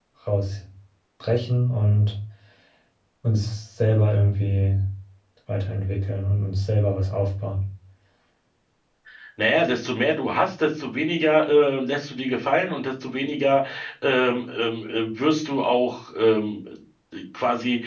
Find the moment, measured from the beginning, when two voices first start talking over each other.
none

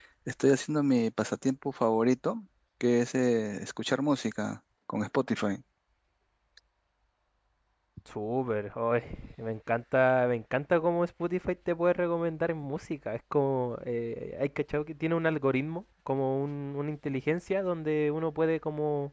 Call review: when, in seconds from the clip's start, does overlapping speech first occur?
none

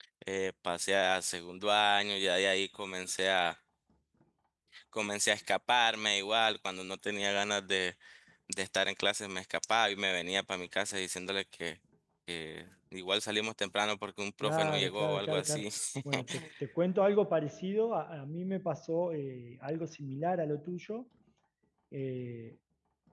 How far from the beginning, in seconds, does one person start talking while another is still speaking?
14.4 s

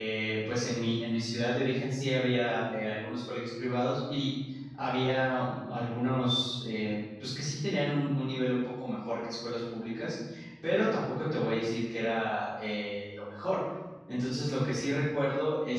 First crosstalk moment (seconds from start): none

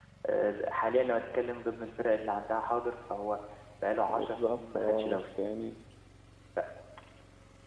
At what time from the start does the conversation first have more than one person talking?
4.1 s

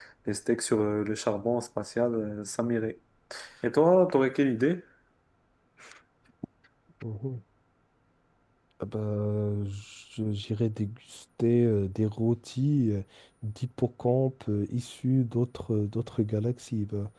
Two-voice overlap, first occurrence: none

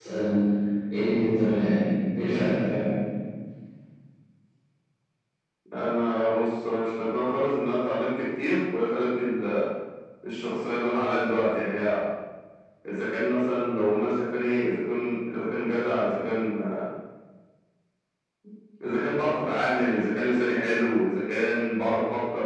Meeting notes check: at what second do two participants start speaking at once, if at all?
none

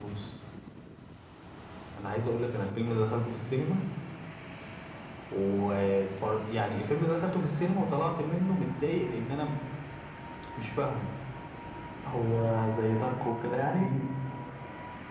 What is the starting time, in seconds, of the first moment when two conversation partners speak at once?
none

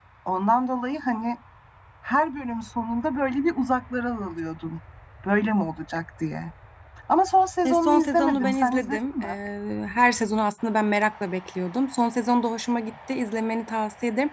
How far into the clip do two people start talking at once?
7.6 s

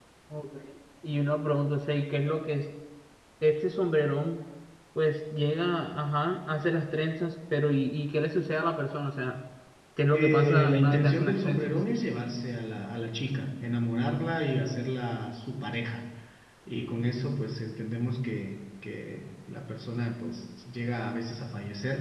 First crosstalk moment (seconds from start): 10.2 s

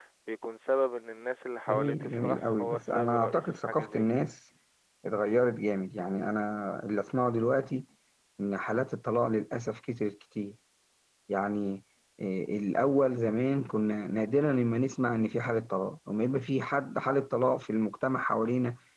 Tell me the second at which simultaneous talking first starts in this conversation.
1.7 s

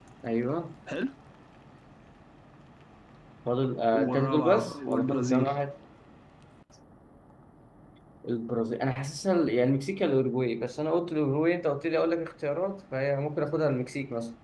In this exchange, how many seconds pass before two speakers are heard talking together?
3.9 s

